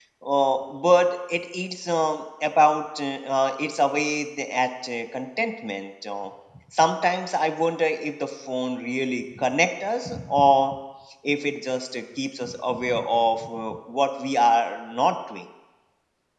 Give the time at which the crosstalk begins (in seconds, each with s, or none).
none